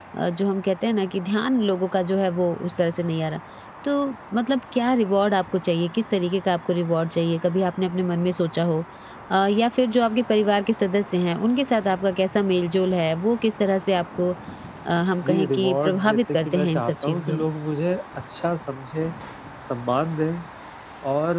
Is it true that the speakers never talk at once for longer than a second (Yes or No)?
No